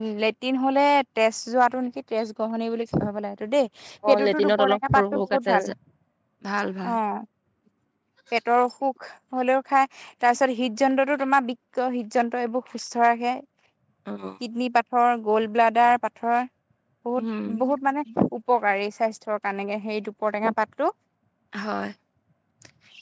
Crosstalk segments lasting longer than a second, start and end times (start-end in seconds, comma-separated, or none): 4.2-5.7